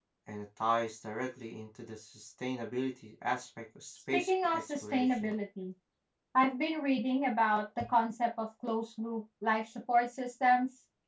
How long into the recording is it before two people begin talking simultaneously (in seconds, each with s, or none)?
4.1 s